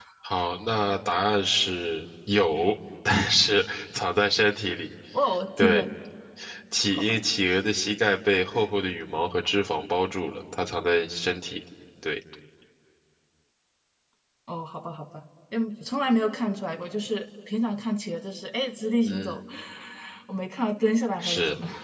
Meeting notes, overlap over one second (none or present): none